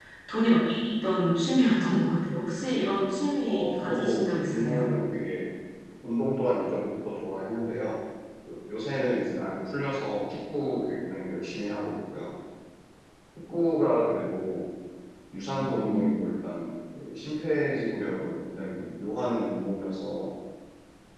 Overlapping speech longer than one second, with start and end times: 3.5-4.9

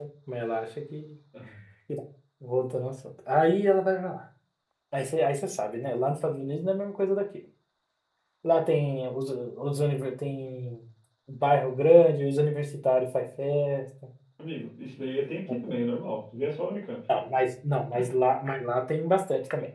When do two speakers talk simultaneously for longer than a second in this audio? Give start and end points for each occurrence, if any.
none

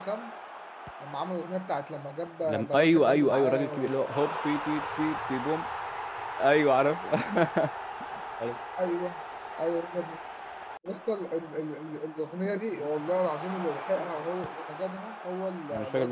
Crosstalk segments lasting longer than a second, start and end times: 2.4-4.0

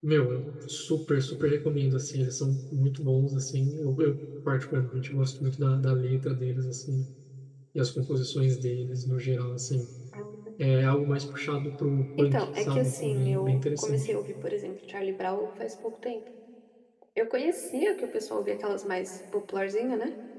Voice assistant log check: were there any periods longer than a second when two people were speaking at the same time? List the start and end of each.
12.2-14.1

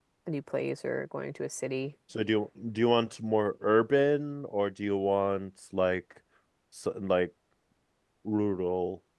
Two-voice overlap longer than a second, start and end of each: none

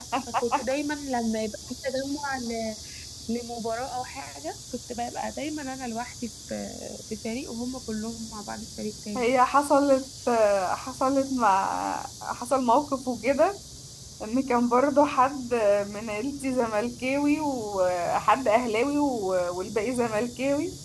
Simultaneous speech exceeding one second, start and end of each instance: none

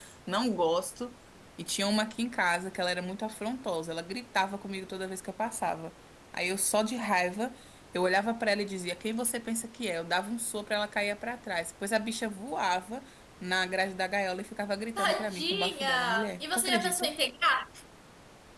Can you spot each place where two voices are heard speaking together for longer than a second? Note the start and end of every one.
15.0-17.1

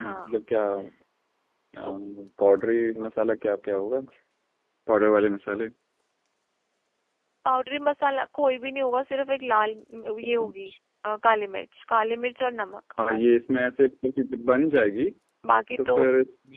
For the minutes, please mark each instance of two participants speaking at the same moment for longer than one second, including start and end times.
none

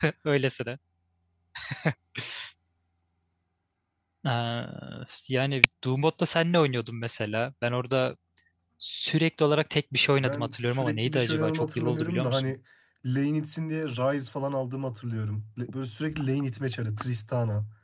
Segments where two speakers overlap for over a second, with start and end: 10.2-12.5

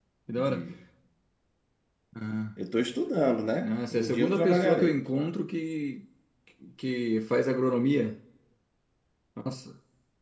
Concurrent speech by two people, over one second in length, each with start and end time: 3.6-5.0

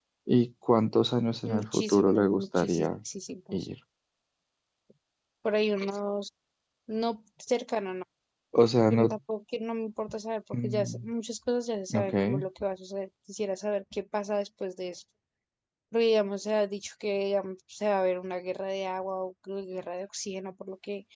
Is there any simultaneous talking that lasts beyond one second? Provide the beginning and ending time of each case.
1.4-2.9

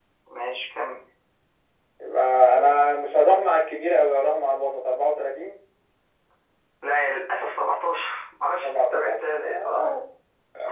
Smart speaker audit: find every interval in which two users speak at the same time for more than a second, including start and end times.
8.6-9.9

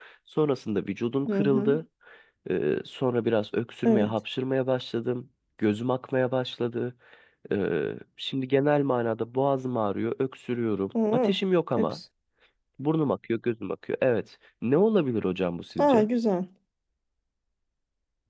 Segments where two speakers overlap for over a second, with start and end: none

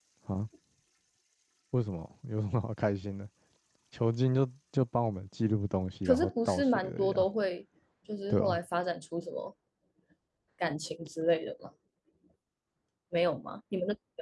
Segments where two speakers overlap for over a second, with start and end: 6.0-7.3

